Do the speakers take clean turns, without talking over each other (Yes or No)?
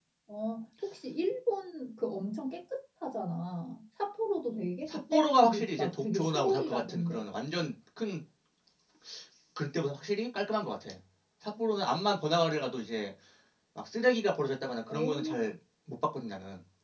No